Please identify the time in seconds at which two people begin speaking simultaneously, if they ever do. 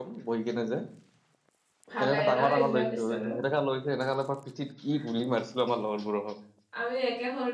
2.0 s

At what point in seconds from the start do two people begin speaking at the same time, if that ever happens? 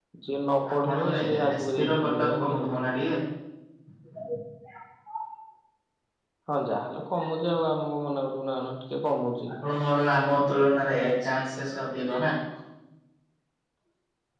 0.7 s

